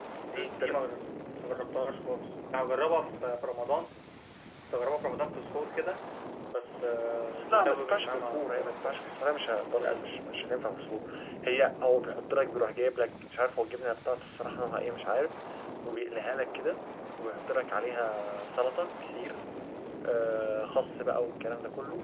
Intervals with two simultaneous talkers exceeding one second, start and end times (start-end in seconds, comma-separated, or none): 7.2-9.1